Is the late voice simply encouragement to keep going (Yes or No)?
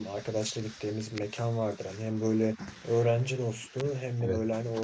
Yes